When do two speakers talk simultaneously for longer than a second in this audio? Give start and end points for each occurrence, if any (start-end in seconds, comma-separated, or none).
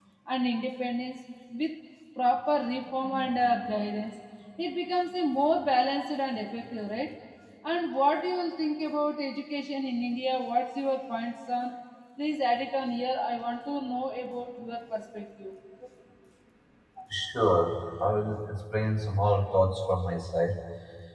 none